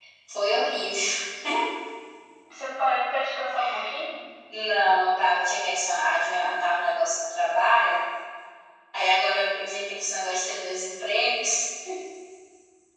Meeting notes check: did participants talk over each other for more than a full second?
No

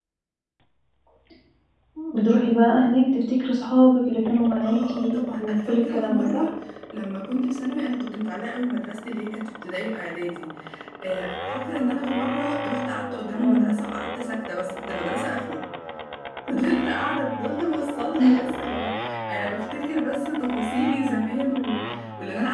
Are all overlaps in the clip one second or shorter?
No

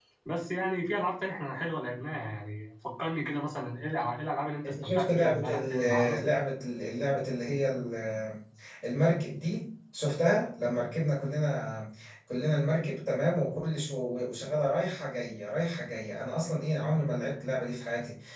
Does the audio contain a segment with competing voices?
Yes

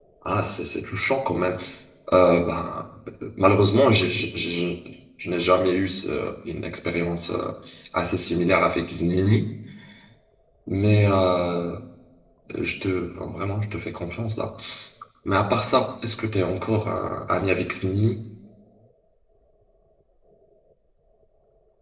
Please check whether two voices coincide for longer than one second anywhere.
No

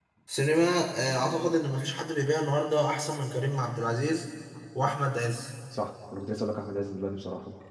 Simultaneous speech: No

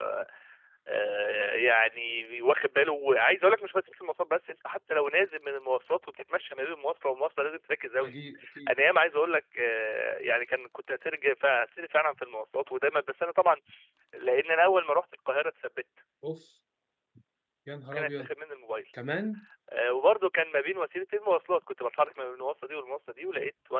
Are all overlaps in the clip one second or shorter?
Yes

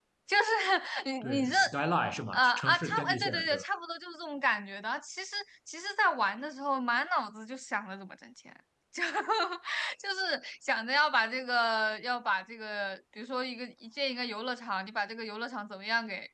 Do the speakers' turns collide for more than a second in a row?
Yes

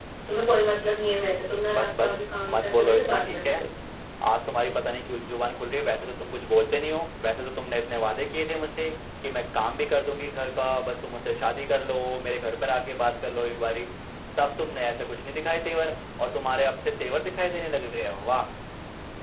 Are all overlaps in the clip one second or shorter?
No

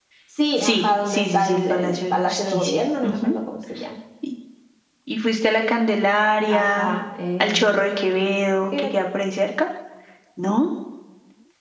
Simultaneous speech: Yes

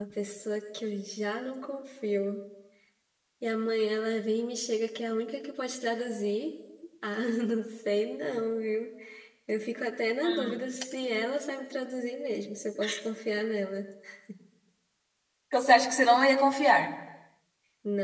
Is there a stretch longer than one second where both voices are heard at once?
No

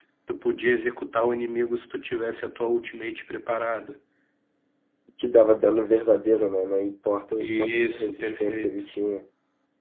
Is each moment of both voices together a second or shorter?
No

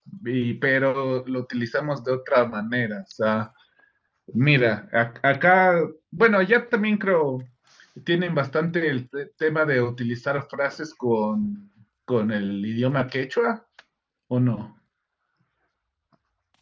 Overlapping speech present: No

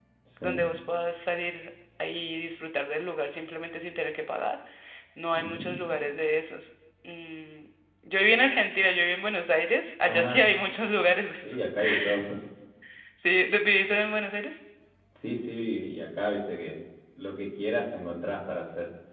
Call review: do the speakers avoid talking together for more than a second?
Yes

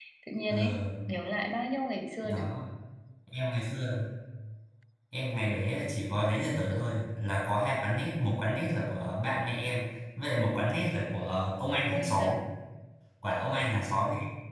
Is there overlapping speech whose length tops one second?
No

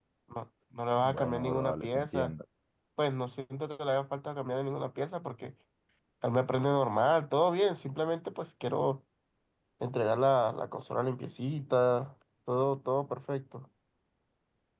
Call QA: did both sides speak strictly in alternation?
No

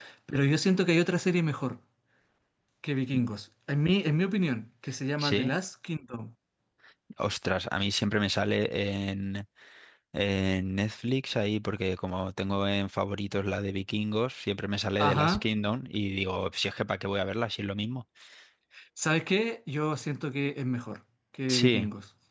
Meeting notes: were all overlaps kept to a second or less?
Yes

